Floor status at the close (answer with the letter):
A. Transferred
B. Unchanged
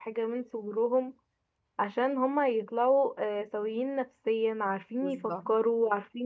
B